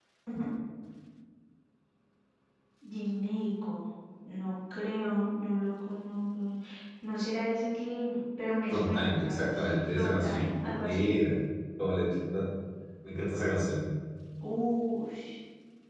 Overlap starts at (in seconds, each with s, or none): 8.7 s